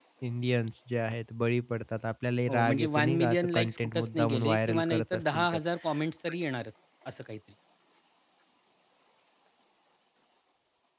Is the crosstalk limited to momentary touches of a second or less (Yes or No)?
No